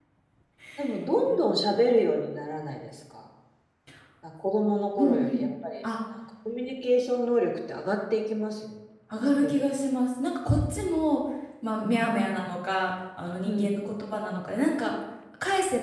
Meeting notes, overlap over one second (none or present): none